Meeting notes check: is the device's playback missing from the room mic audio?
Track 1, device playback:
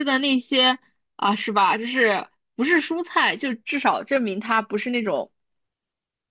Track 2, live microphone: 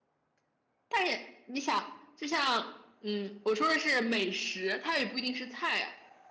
Yes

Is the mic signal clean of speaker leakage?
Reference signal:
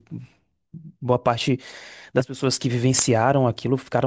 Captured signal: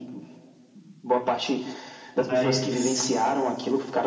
No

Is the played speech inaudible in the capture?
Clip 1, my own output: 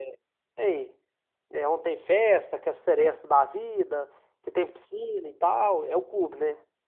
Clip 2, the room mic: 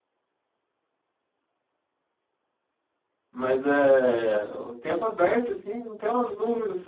Yes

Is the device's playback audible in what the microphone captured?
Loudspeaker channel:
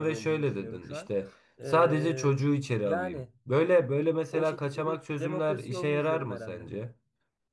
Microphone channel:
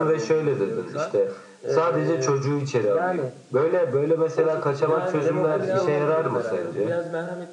Yes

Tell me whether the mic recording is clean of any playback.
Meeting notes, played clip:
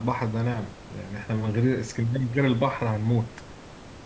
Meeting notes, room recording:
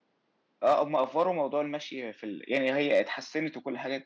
Yes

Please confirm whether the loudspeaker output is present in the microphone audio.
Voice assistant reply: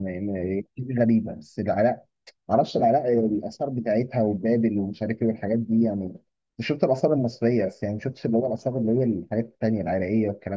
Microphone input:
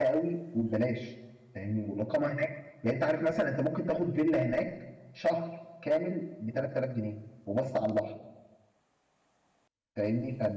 No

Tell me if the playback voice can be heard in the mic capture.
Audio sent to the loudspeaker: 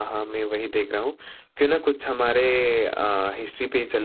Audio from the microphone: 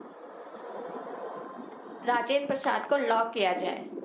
No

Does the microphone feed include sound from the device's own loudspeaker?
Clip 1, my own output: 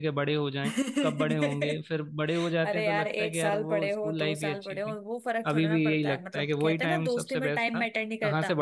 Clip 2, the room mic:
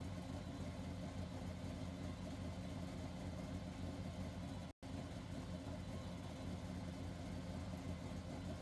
No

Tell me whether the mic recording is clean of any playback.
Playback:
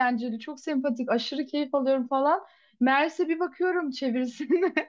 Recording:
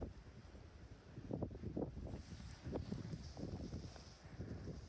Yes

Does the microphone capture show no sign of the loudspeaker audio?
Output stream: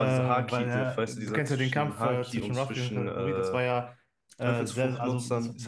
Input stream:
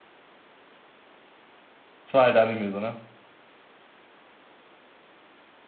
Yes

